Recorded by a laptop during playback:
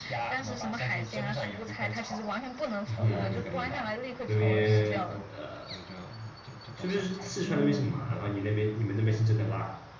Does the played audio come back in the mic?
Yes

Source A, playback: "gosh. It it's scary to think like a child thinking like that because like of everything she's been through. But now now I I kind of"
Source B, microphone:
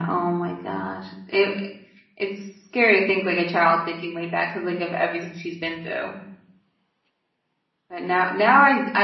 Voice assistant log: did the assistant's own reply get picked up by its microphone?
Yes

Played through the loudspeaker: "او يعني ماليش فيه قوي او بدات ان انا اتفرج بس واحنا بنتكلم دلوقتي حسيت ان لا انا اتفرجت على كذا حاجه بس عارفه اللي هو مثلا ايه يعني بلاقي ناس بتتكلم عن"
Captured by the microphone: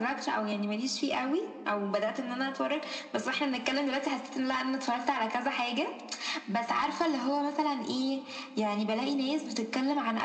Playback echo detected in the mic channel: Yes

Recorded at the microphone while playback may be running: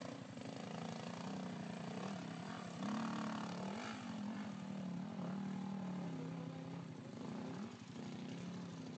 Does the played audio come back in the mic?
No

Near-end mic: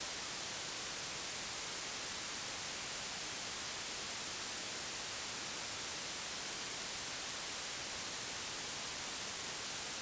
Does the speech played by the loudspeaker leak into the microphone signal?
No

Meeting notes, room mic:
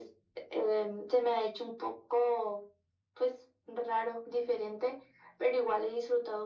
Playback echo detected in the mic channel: Yes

